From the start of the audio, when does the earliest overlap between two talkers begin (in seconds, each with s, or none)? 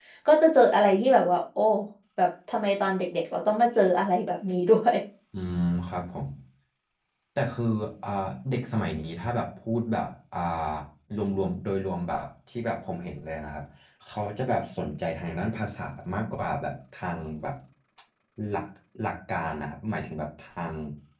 none